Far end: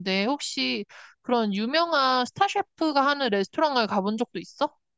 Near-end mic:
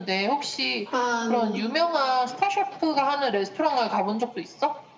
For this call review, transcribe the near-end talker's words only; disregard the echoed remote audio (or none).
한